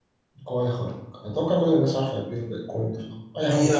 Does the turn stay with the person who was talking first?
No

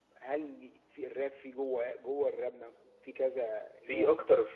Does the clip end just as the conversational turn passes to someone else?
Yes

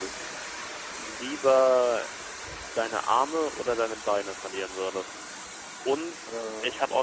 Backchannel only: Yes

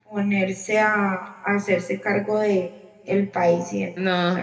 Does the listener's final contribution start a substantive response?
Yes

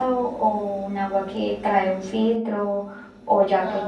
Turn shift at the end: No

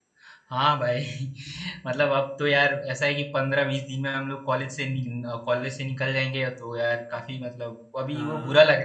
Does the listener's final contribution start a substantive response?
No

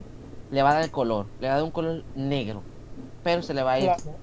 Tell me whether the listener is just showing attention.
Yes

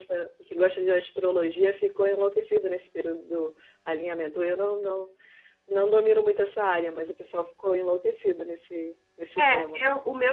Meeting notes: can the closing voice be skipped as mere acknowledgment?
No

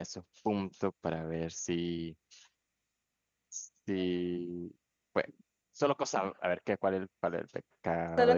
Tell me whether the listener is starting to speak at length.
No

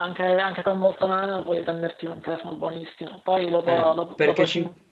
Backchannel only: Yes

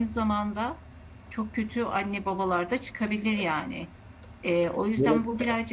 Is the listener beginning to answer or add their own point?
No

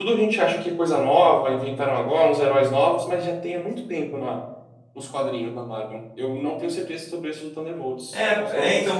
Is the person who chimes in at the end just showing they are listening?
No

